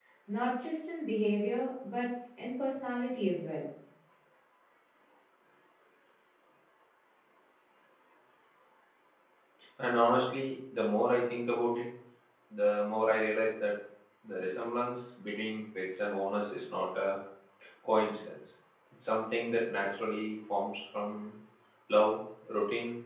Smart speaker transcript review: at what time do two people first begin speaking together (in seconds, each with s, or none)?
none